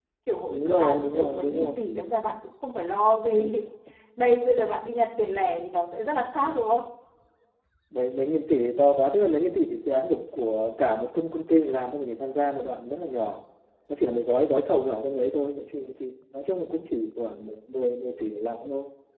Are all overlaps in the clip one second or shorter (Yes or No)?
No